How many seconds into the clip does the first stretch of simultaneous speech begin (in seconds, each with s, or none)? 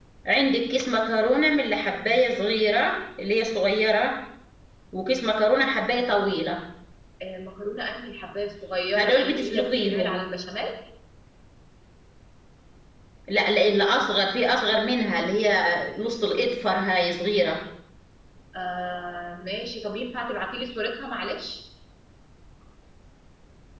8.9 s